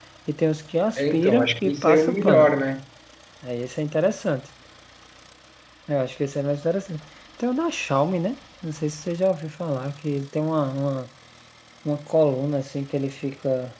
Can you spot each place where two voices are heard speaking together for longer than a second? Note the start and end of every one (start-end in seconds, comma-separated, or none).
1.0-2.5